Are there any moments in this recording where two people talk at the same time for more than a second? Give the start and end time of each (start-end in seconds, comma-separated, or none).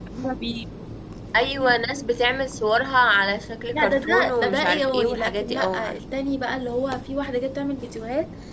3.7-5.9